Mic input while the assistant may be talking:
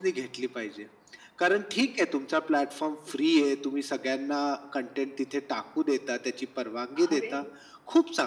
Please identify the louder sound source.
echo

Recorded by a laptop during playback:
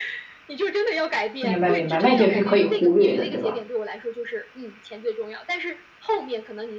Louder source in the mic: user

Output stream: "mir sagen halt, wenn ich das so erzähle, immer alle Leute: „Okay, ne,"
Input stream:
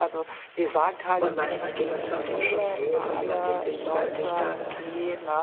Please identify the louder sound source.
user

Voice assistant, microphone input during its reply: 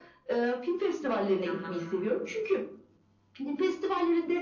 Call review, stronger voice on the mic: echo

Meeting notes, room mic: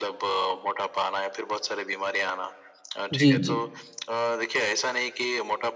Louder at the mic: user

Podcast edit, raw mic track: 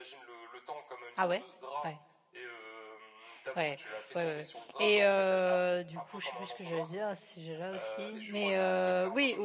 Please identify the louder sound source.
user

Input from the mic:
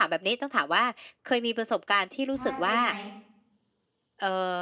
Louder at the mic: echo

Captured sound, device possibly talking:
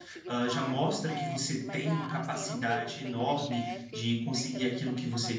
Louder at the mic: user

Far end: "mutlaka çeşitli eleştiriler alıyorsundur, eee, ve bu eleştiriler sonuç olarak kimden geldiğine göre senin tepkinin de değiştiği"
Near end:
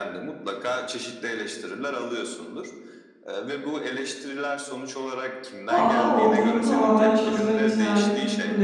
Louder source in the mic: user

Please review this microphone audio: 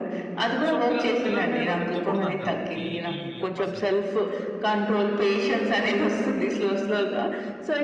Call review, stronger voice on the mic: echo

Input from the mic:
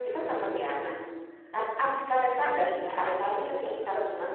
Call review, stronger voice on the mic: user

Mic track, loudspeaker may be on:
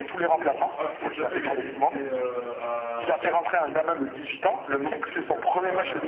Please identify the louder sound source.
echo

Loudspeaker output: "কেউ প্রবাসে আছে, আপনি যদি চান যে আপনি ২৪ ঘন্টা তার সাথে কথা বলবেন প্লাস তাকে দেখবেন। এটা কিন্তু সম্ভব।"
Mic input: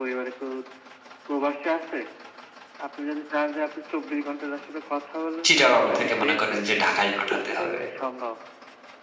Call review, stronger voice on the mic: user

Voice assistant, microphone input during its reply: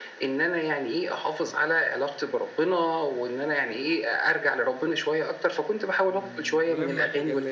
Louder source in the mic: echo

